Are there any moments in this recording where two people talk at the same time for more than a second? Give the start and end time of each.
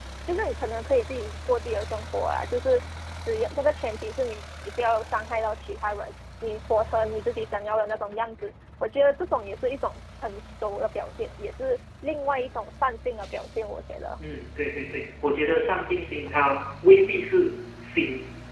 none

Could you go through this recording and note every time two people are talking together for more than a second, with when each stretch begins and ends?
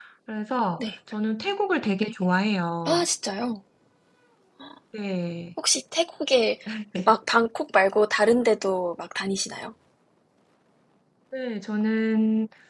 none

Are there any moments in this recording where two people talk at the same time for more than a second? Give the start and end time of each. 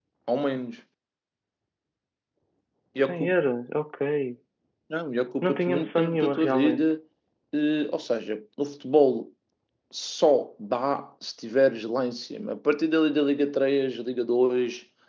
5.4-6.8

